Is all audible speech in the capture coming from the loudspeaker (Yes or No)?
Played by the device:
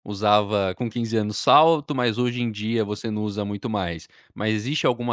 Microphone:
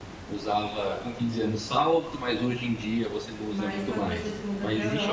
No